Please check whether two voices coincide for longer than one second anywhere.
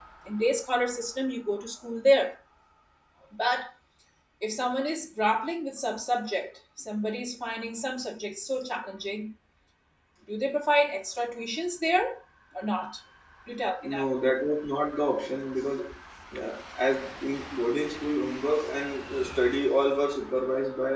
No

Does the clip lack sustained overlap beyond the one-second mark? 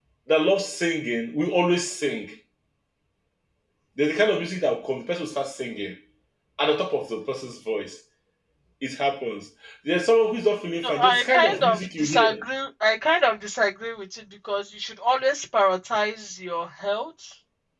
No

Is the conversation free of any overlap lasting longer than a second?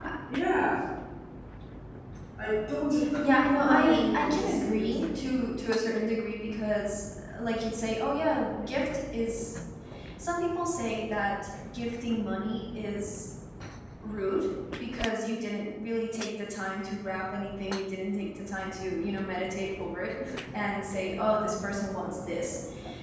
No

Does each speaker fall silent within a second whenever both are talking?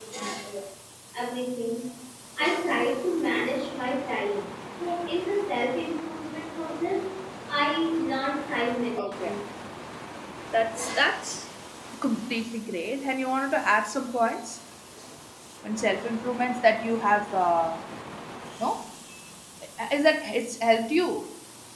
Yes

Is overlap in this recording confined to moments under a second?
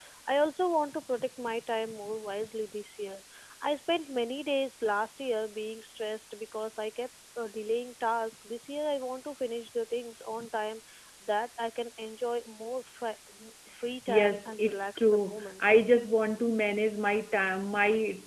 No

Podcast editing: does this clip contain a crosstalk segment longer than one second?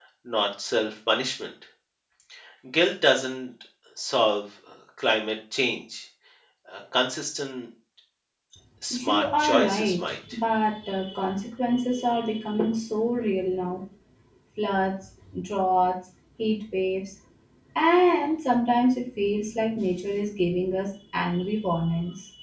Yes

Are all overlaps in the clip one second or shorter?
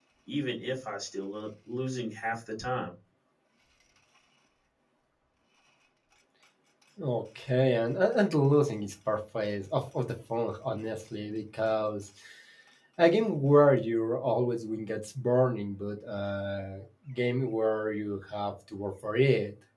Yes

